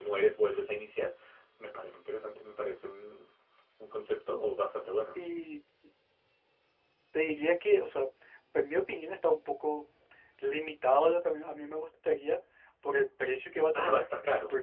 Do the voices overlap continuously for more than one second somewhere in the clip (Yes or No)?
No